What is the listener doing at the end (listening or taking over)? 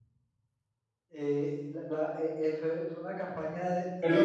taking over